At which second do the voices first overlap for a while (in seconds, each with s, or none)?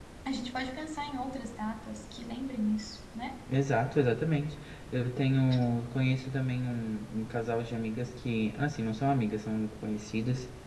none